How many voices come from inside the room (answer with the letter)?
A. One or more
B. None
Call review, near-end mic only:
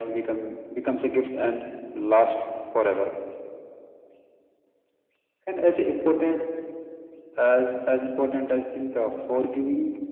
B